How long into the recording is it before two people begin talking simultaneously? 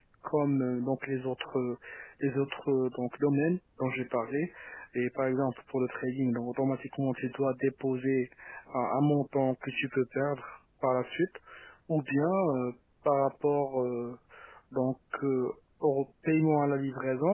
none

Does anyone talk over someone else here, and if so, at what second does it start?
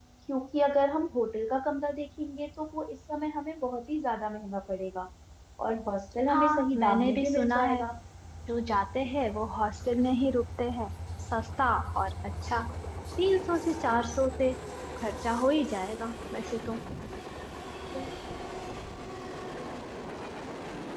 6.3 s

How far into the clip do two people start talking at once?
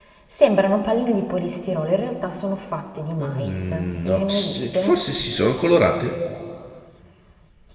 3.2 s

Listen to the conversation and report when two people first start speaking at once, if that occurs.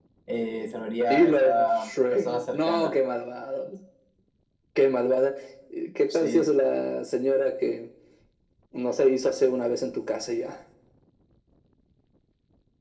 1.0 s

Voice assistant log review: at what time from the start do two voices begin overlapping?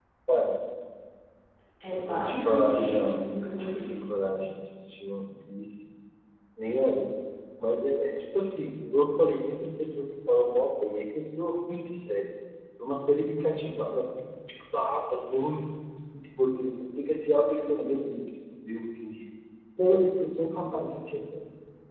1.9 s

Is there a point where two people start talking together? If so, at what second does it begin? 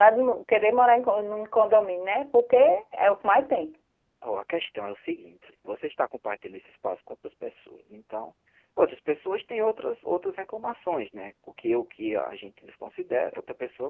none

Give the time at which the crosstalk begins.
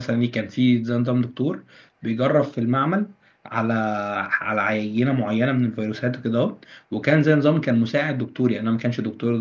none

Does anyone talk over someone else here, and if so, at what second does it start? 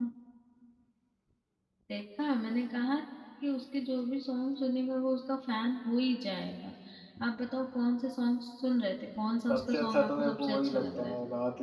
9.5 s

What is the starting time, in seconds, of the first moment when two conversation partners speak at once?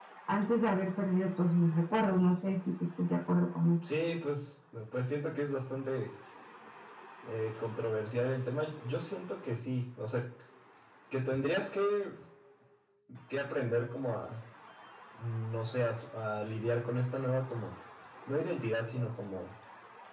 none

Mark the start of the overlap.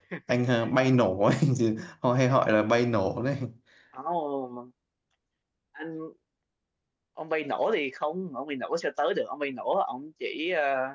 none

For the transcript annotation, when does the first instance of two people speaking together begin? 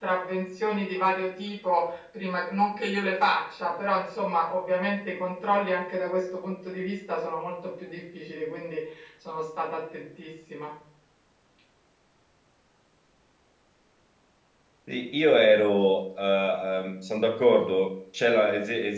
none

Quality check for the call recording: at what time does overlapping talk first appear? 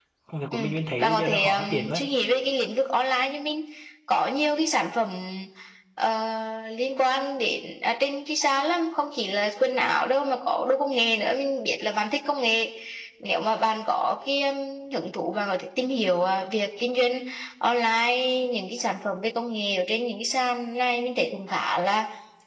0.5 s

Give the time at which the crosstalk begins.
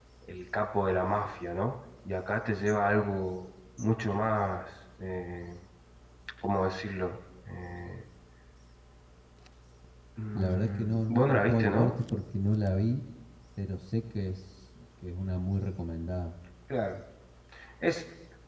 10.3 s

